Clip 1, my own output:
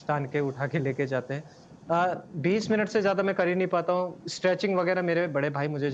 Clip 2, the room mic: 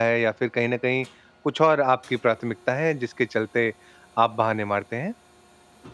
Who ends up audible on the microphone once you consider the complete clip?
user only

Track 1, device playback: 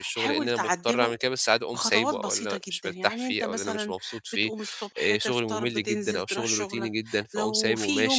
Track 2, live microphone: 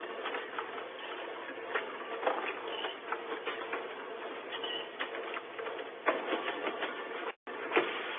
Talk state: neither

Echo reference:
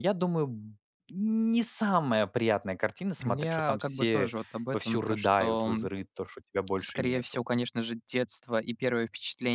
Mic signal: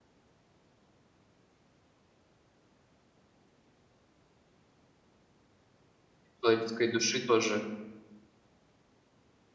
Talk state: user only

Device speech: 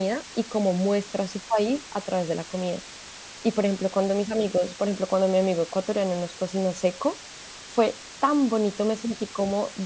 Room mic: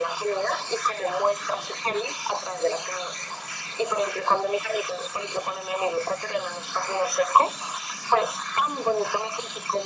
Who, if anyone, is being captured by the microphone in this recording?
echo only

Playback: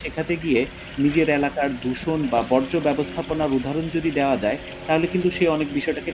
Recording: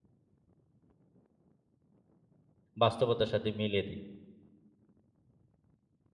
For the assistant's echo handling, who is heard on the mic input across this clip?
user only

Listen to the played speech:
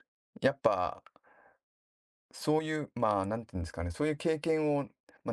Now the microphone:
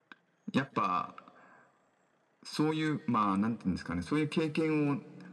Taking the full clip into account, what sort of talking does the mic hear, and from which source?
echo only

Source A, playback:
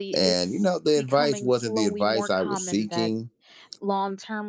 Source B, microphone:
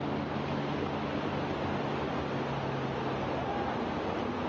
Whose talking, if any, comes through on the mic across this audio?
neither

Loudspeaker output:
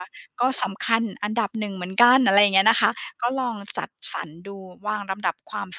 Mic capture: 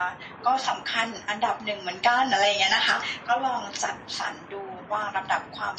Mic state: echo only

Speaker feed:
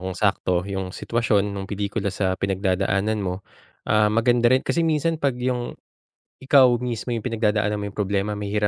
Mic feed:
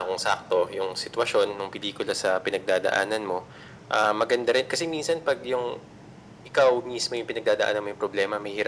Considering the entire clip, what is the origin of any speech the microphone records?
echo only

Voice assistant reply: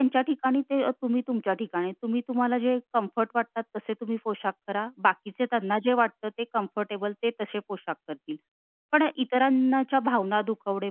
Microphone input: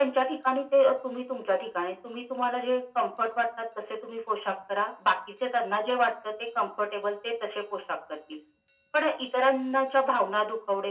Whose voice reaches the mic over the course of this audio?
echo only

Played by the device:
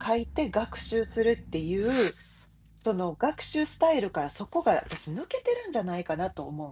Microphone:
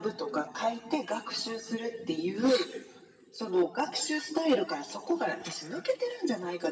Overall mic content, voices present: echo only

